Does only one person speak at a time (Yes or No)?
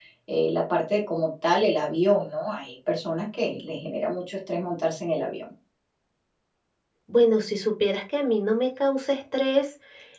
Yes